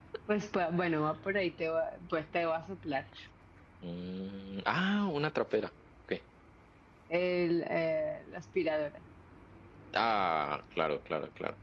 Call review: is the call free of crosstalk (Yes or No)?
Yes